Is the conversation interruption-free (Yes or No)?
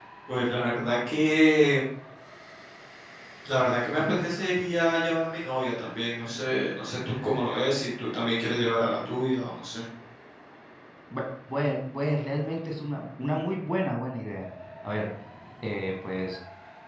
Yes